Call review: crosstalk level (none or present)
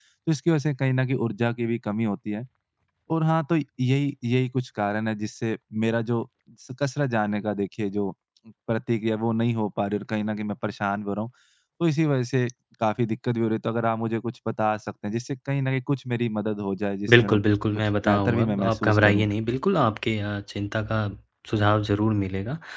present